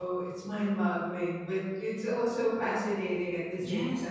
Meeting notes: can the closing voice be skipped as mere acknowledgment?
No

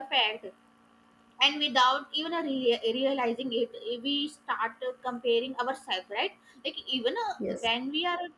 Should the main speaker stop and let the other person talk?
No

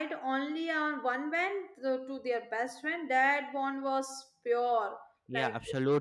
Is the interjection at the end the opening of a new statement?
Yes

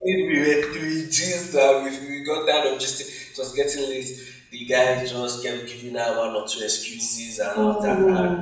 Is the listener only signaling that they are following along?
Yes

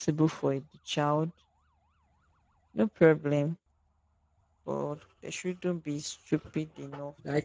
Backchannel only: No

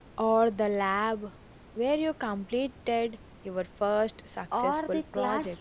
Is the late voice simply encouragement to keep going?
No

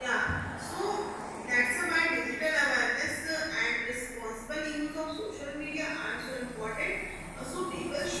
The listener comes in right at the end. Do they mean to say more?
No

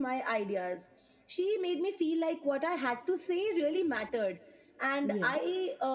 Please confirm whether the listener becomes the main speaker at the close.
No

